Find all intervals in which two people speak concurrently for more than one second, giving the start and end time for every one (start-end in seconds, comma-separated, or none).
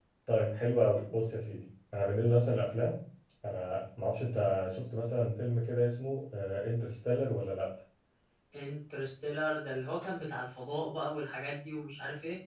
none